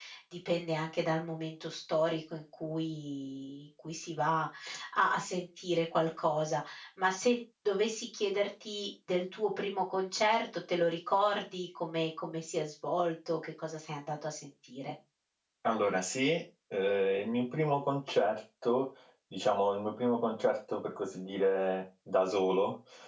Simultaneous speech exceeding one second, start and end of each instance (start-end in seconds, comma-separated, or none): none